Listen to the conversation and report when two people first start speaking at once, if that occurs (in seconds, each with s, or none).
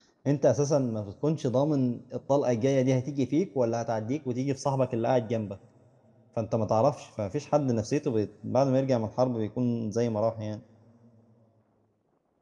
none